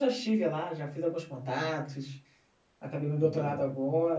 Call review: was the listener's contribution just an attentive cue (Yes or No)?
Yes